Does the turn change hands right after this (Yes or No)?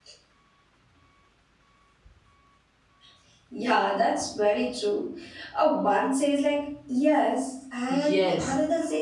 Yes